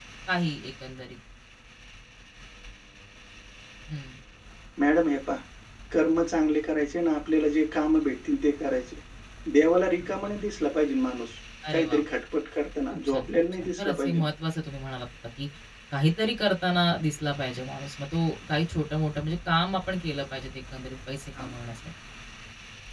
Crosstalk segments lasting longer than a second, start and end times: 12.9-14.2

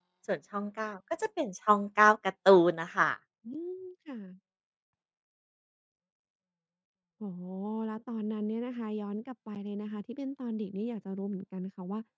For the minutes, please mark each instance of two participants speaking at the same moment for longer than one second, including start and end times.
none

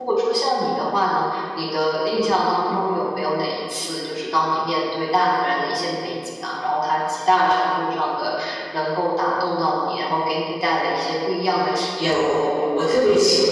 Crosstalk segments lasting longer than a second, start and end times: none

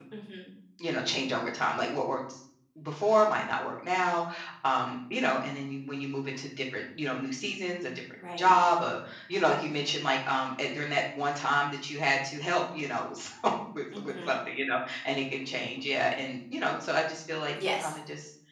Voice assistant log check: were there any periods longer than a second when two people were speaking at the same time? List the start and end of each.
none

